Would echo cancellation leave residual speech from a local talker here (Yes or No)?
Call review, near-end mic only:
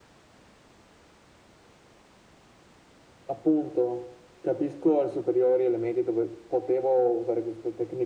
No